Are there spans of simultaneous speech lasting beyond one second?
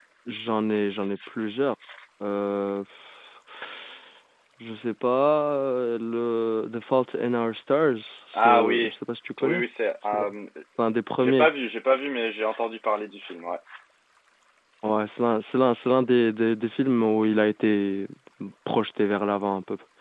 No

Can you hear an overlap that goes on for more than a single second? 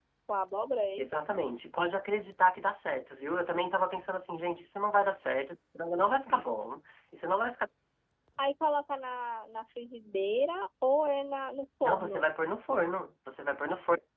No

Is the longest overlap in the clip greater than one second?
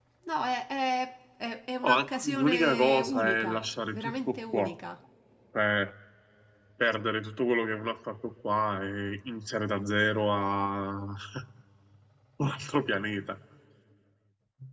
Yes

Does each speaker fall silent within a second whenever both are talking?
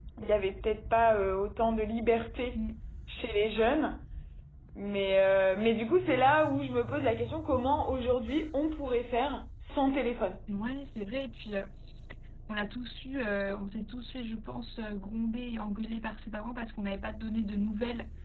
Yes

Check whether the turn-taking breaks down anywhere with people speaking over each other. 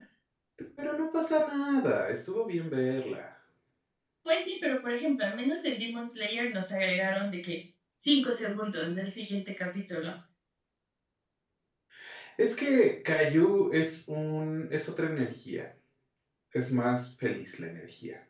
No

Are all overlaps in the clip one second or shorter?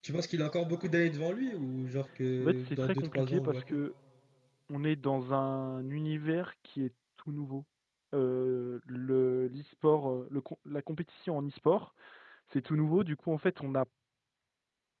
No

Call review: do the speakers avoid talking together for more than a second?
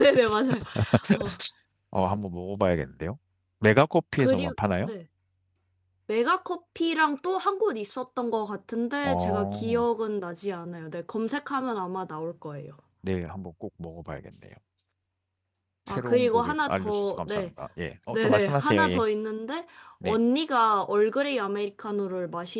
No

